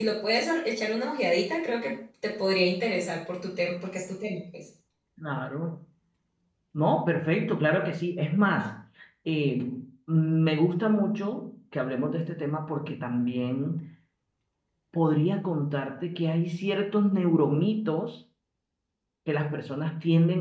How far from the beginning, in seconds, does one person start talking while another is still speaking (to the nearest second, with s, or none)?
none